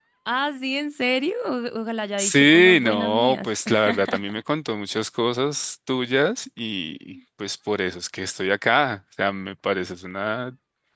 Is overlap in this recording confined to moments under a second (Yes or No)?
No